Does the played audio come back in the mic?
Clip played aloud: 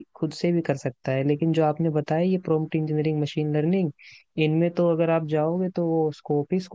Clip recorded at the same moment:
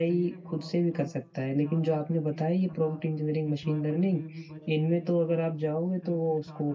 Yes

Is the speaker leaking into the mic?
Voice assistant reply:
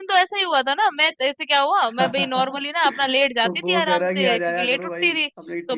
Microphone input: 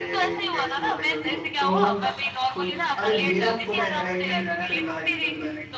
Yes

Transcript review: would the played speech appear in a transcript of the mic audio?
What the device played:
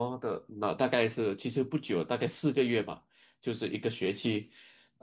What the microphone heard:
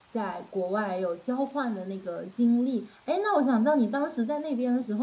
No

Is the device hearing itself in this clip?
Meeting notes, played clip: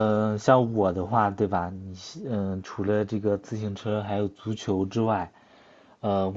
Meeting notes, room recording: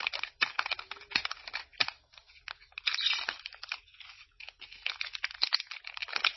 No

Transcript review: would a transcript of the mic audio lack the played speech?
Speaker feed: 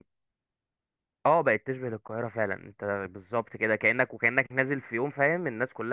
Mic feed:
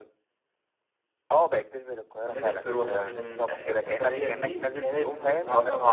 No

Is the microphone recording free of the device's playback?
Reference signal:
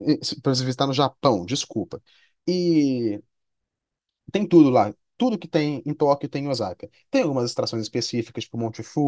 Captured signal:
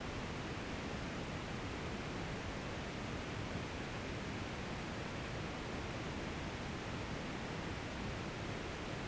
Yes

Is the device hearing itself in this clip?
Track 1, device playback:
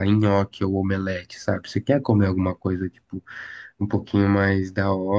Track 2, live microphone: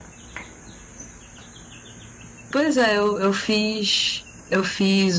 No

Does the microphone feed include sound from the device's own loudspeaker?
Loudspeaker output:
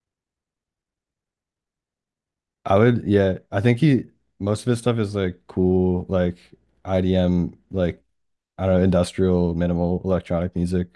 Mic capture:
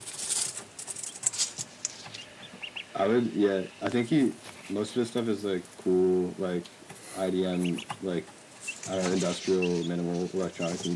Yes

